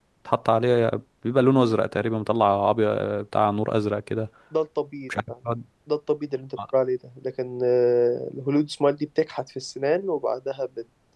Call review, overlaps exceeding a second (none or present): none